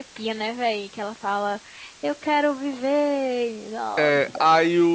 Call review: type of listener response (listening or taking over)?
taking over